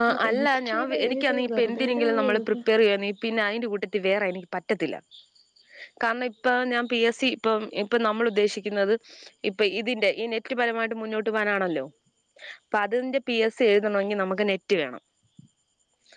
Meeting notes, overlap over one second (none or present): present